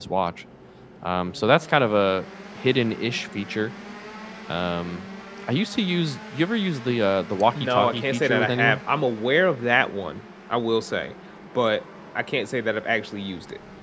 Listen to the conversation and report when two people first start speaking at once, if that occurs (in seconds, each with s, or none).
7.5 s